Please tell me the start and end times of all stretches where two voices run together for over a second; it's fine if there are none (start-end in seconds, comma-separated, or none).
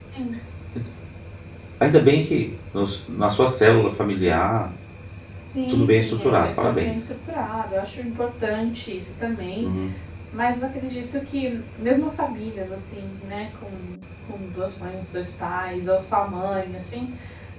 5.7-6.9